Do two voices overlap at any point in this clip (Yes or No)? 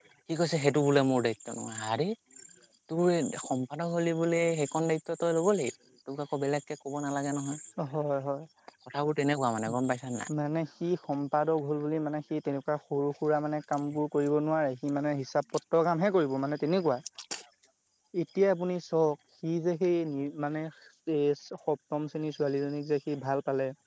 No